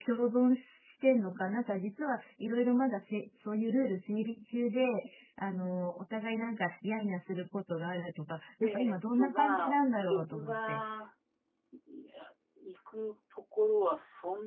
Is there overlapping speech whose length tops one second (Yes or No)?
Yes